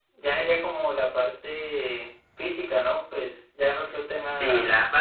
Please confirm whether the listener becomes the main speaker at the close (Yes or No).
Yes